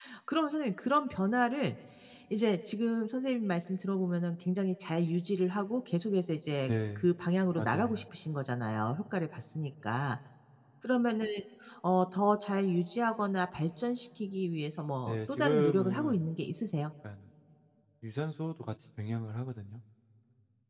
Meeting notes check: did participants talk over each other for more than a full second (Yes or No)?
Yes